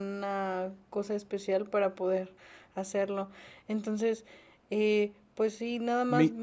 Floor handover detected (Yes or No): No